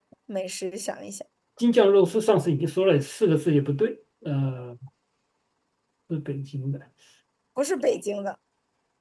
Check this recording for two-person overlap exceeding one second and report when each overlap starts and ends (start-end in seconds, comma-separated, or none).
none